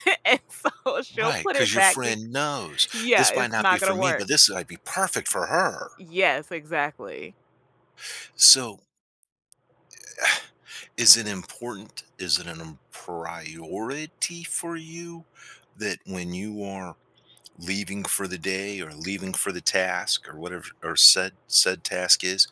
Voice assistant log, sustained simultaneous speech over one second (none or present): present